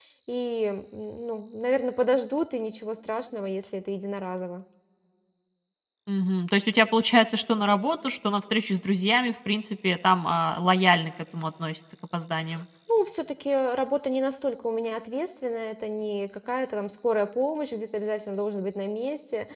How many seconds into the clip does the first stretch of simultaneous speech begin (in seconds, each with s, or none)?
none